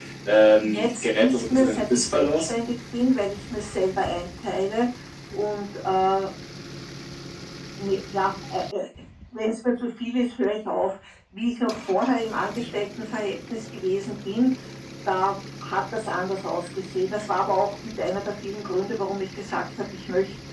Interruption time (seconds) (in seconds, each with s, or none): 0.6 s